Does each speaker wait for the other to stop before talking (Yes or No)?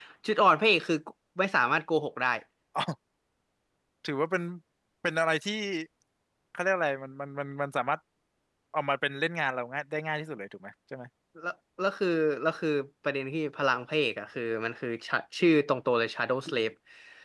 Yes